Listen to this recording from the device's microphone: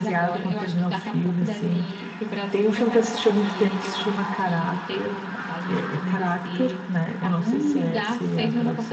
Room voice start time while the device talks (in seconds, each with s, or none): none